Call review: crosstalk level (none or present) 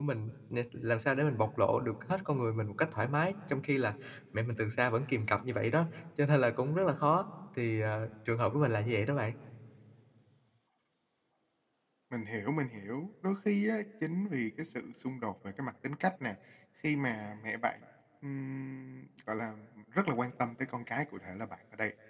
none